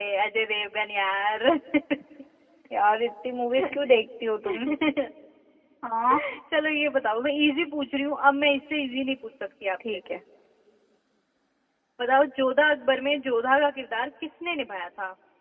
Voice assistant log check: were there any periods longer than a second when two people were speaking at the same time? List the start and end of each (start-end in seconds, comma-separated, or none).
none